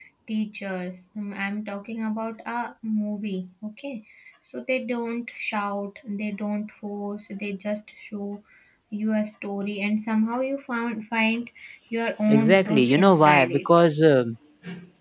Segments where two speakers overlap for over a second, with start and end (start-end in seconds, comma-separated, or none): 12.3-13.7